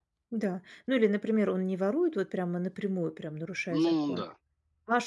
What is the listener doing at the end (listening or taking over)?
listening